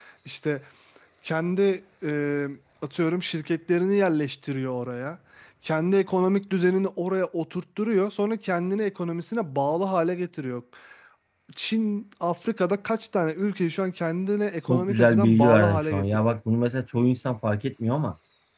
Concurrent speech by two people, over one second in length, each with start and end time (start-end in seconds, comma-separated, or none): 14.7-16.4